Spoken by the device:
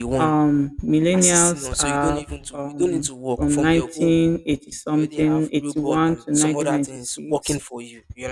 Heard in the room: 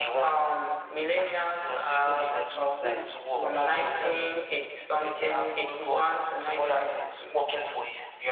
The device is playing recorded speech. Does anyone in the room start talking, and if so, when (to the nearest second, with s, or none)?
2 s